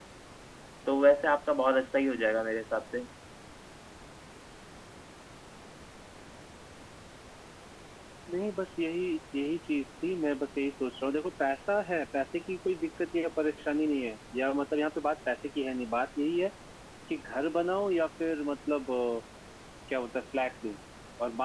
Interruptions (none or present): none